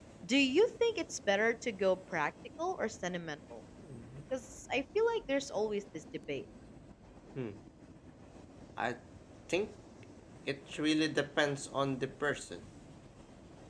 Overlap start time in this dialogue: none

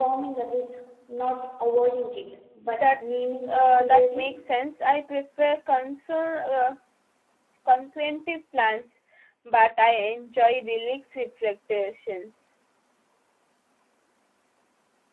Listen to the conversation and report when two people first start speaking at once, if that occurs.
2.6 s

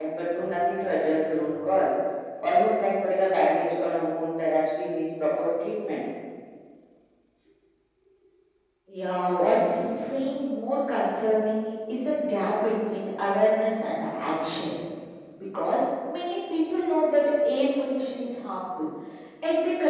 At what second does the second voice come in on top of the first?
none

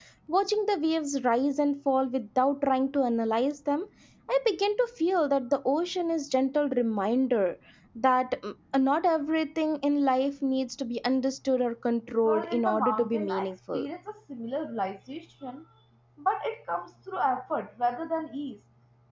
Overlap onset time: 12.2 s

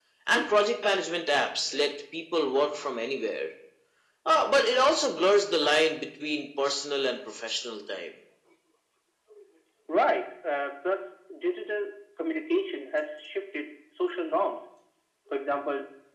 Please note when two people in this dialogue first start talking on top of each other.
none

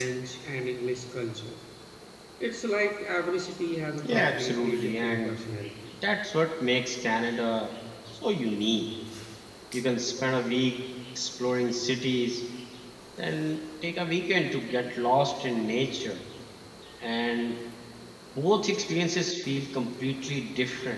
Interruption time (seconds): 4.0 s

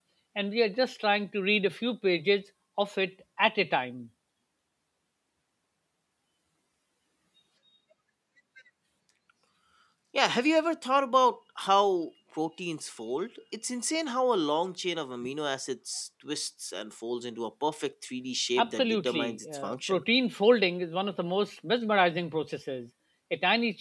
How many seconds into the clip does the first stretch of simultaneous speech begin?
18.6 s

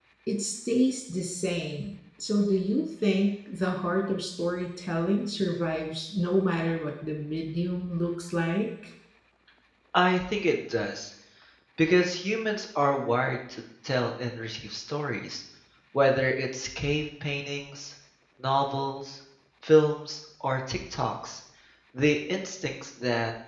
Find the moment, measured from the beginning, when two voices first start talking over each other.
none

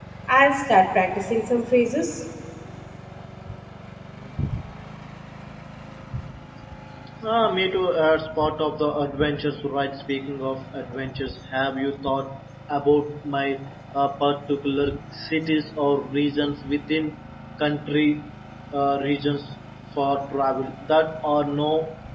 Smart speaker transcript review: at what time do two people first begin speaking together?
none

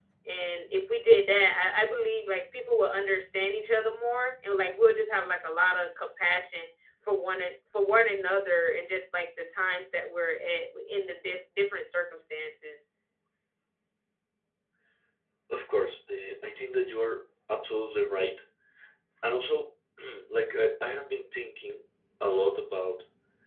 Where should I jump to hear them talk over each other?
none

